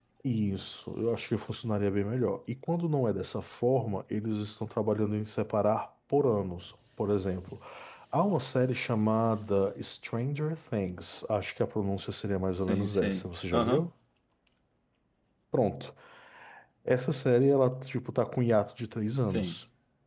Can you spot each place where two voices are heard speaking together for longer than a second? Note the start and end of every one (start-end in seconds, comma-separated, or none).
12.6-13.8